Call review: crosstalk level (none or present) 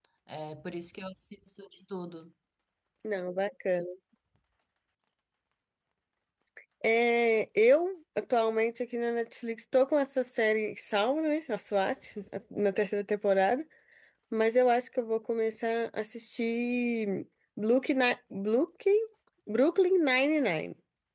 none